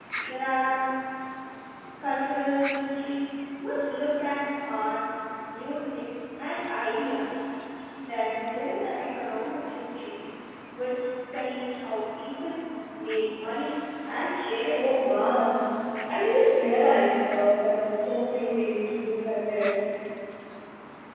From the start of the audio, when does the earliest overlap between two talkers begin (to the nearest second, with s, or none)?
none